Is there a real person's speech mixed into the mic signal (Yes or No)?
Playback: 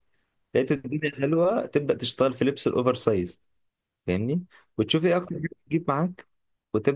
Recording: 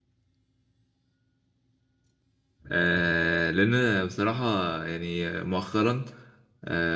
Yes